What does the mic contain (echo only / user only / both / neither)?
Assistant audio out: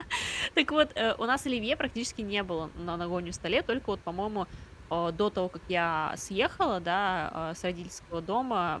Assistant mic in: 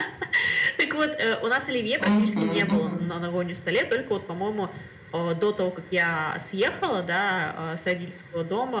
both